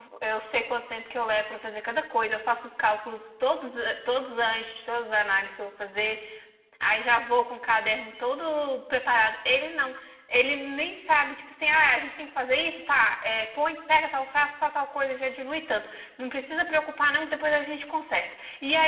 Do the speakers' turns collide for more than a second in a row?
No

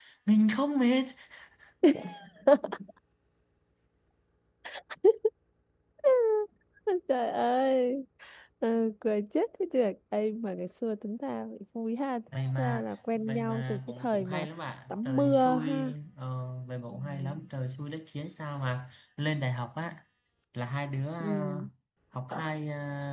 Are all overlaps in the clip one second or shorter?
No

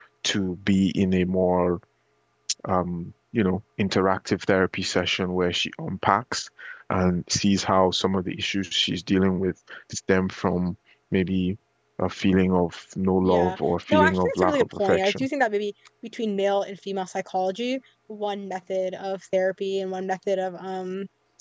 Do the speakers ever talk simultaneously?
Yes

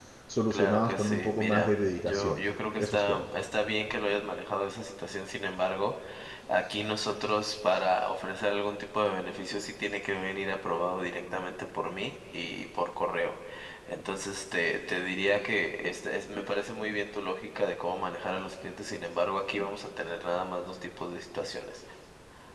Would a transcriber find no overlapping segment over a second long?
No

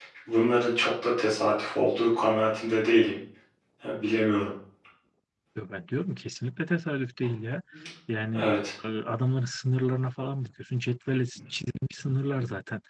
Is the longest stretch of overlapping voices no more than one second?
Yes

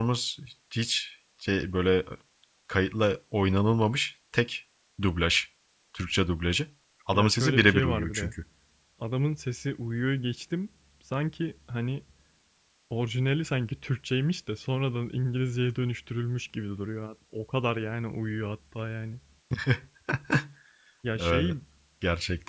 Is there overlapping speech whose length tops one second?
Yes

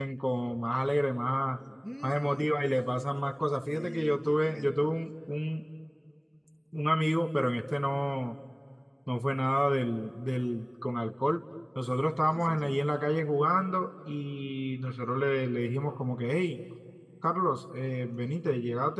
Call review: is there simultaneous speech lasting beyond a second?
Yes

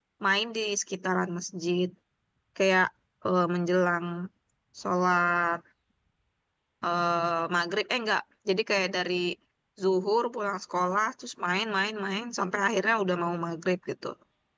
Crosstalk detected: No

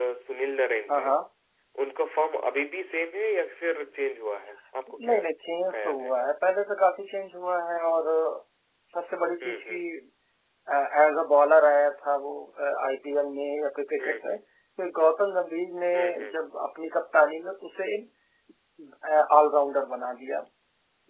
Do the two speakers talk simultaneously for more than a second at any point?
No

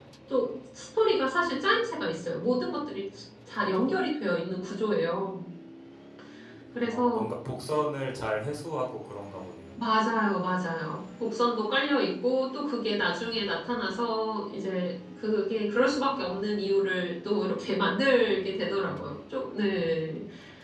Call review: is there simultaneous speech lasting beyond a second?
No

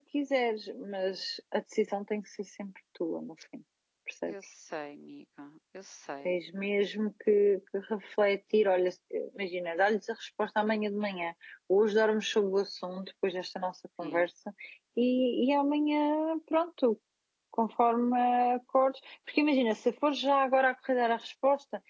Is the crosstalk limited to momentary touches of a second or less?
Yes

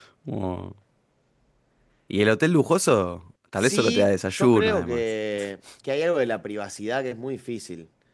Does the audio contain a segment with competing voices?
Yes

